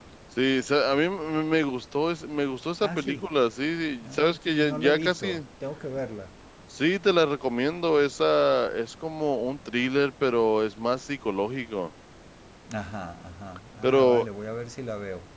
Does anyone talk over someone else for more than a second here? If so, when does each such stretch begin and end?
4.0-5.4

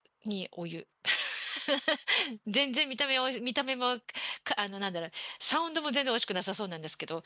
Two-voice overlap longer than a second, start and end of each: none

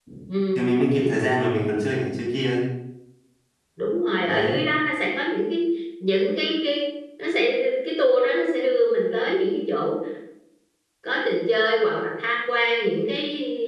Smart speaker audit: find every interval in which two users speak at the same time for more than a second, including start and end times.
none

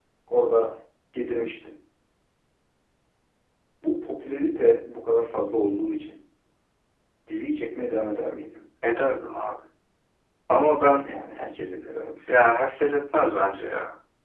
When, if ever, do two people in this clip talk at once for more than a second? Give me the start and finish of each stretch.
none

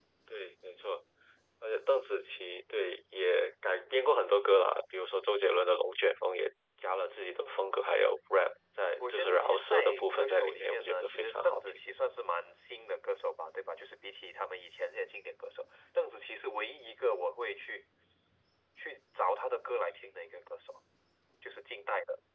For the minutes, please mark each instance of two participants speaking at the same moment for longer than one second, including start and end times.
9.0-11.8

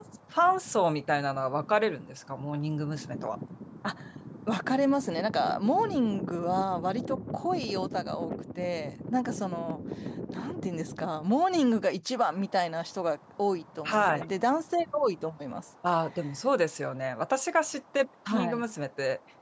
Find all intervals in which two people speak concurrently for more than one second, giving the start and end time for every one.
none

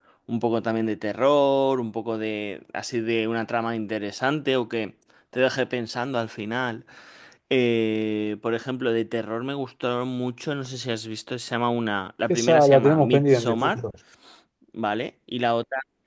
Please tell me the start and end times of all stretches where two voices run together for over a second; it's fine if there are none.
12.3-13.8

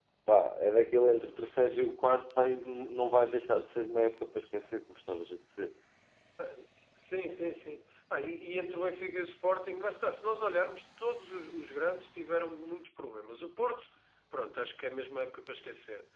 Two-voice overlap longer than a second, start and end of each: none

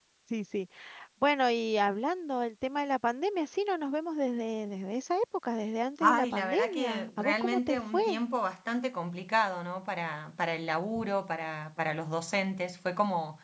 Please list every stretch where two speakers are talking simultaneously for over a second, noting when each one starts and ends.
6.0-8.2

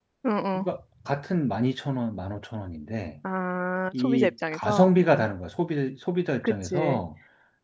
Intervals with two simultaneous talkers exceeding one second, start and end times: 4.0-5.2

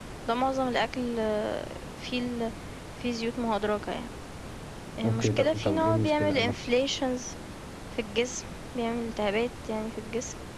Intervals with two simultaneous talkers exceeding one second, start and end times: 5.0-6.5

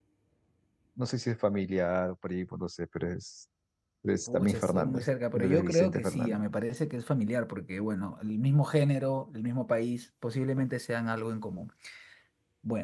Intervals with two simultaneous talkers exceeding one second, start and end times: 4.3-6.4

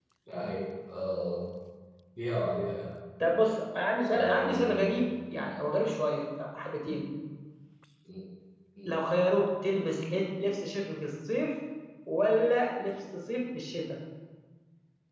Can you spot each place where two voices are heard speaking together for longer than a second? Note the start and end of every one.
4.1-5.5

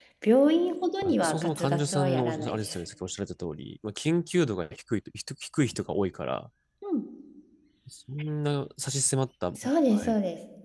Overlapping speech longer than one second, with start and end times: 1.0-2.8

